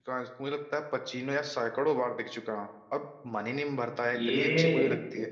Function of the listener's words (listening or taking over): taking over